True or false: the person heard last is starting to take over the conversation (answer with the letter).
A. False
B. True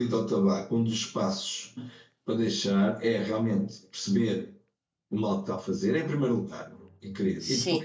A